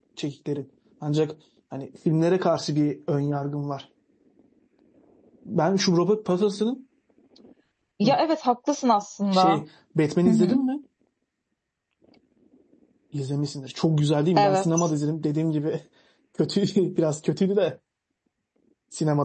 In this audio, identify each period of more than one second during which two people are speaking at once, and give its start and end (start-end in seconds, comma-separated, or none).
none